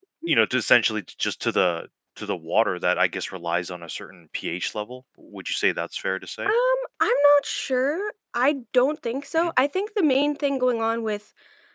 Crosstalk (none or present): none